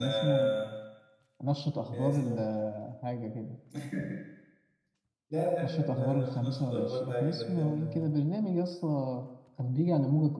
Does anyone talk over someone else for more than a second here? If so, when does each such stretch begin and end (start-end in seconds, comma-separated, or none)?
5.6-8.1